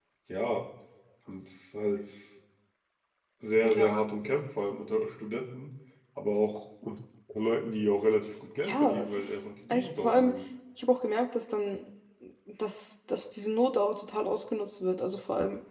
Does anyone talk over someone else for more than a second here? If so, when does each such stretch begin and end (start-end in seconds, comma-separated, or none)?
8.6-10.3